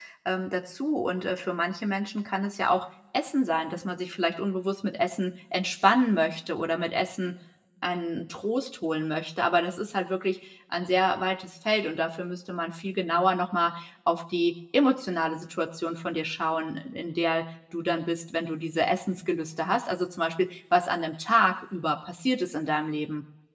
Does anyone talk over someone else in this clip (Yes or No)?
No